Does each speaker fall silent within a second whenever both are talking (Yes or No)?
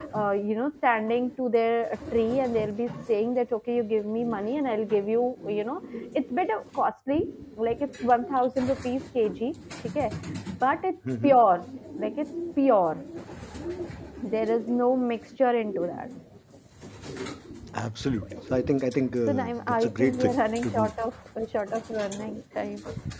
No